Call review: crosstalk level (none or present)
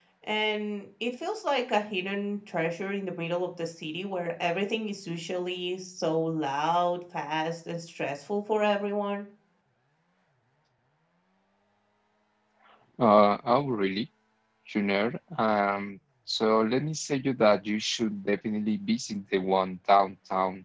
none